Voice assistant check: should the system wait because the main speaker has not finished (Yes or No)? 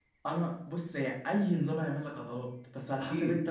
Yes